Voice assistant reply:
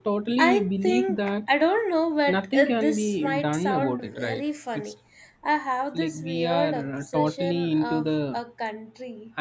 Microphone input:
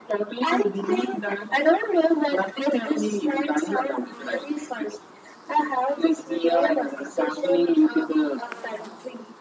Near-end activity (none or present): none